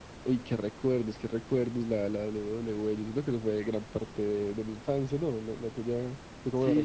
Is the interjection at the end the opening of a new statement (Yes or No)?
Yes